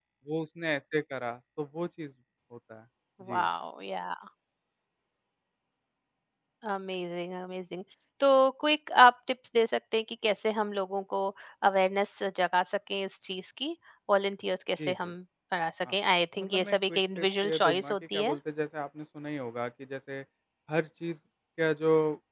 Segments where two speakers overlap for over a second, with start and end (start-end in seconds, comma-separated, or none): 16.4-18.4